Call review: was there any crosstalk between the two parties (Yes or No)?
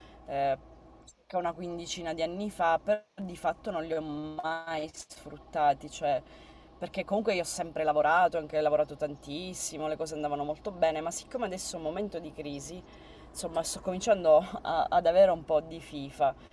No